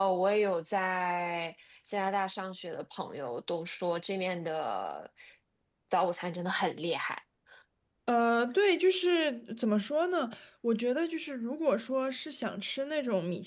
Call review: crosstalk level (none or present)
none